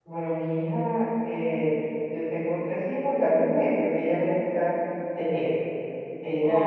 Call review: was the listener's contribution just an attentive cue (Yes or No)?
Yes